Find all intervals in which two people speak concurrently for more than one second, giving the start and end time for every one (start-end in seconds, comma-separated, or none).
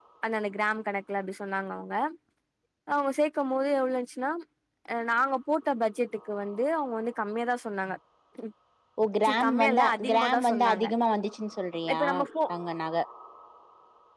9.2-10.9